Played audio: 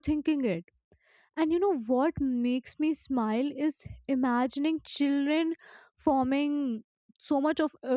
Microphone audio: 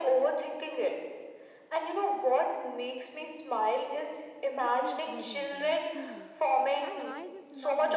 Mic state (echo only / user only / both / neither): both